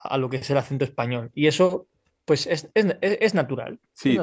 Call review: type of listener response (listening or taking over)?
taking over